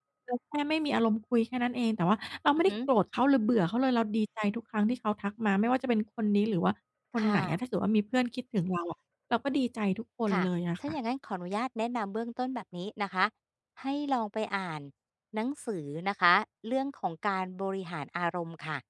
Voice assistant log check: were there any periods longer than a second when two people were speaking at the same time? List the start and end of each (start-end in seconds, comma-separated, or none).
none